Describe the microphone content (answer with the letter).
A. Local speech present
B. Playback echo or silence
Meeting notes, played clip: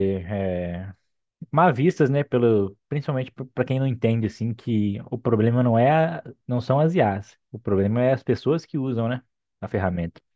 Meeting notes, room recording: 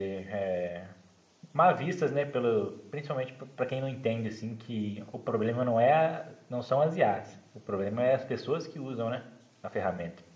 B